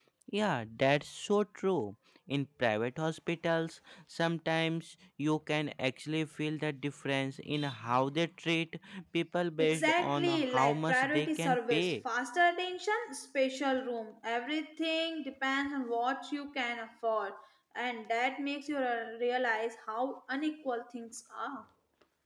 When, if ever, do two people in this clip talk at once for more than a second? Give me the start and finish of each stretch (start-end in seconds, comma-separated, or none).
9.6-11.9